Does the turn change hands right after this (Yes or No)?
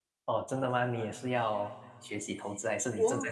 Yes